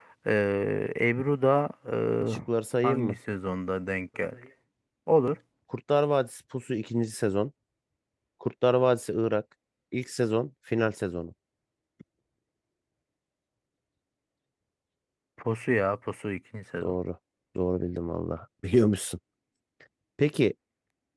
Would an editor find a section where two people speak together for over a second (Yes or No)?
No